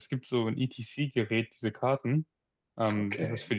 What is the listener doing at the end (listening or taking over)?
listening